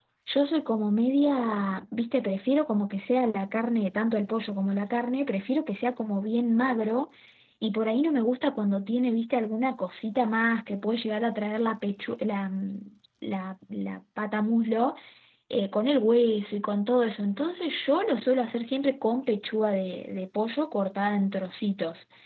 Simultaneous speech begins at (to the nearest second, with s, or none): none